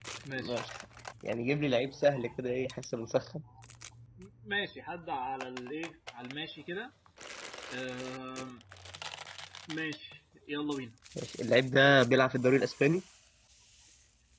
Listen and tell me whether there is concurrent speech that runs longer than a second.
No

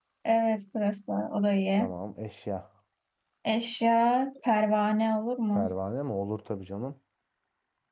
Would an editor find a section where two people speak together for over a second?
No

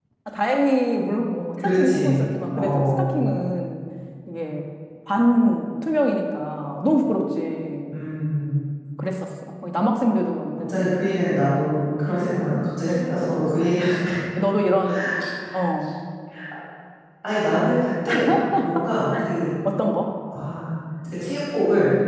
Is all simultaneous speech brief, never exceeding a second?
No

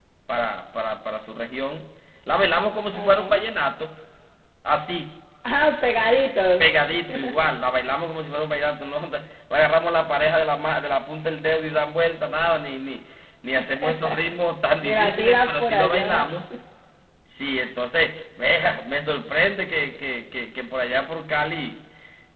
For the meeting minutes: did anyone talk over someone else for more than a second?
Yes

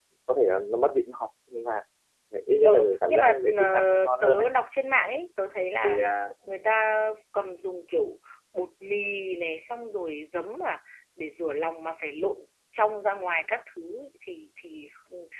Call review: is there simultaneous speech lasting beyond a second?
Yes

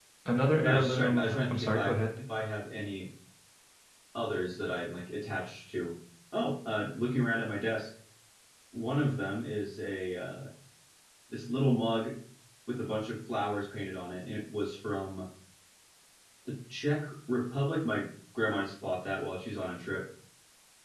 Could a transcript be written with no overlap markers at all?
No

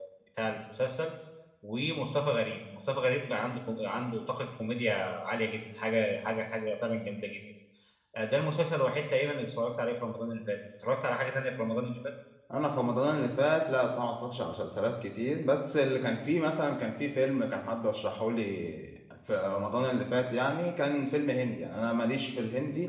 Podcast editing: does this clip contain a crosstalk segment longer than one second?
No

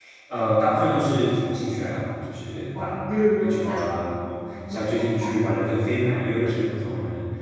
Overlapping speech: Yes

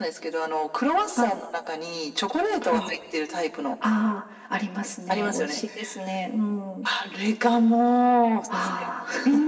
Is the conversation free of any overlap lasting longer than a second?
Yes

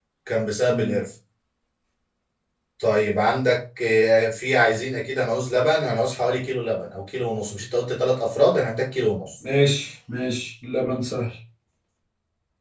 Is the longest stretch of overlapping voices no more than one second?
Yes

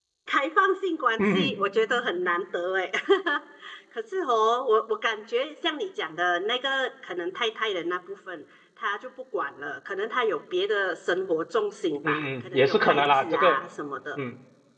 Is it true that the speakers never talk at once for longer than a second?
No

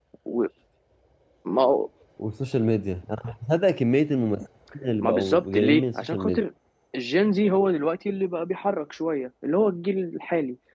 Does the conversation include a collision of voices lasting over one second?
Yes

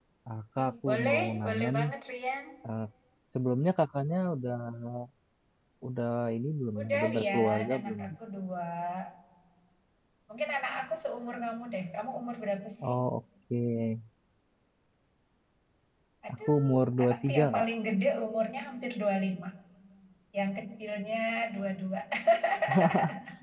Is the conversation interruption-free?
No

